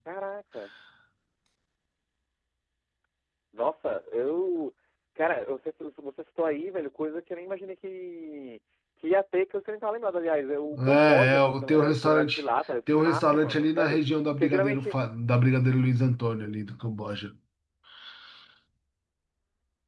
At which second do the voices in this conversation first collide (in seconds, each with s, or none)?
10.7 s